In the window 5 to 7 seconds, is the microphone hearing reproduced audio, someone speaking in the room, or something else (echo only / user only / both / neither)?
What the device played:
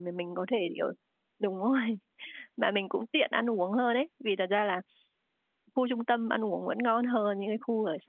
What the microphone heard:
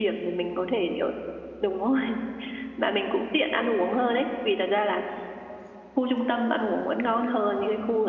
echo only